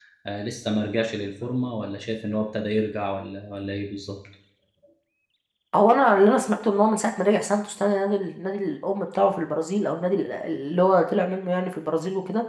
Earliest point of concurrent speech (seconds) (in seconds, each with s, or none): none